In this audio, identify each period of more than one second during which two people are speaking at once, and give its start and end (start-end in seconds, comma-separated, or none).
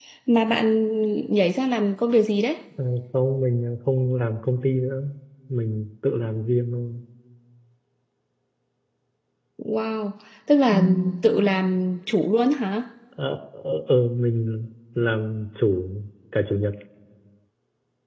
none